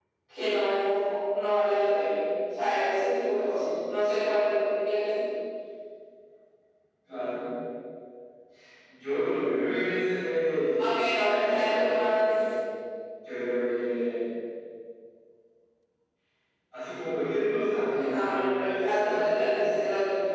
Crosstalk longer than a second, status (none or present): present